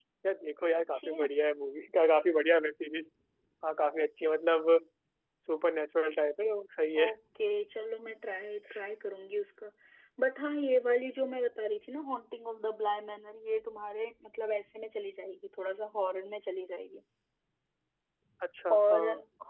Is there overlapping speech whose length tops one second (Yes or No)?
No